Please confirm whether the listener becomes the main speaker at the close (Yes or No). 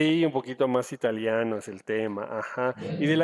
No